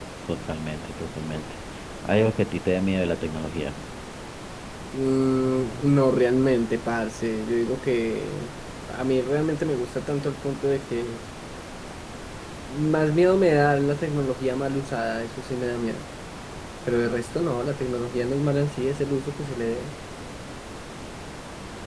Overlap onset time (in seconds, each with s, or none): none